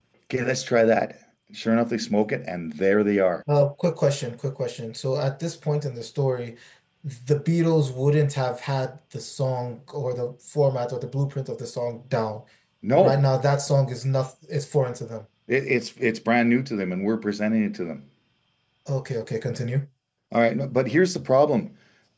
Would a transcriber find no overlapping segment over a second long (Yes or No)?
Yes